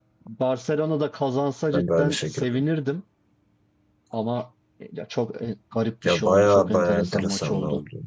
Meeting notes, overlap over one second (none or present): present